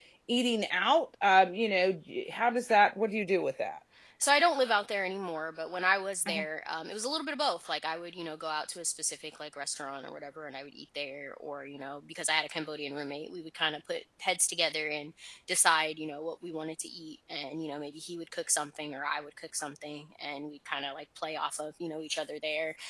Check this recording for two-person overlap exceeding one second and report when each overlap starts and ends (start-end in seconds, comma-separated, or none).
none